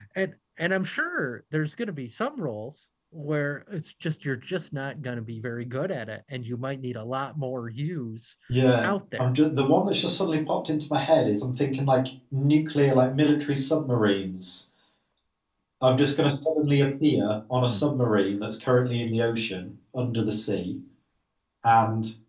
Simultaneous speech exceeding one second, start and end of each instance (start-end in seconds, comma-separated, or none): none